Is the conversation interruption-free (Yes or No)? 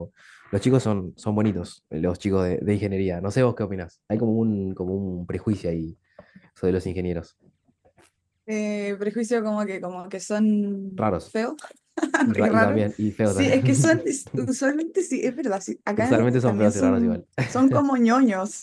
No